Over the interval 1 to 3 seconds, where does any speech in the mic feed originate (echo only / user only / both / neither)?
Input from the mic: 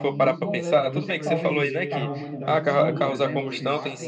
both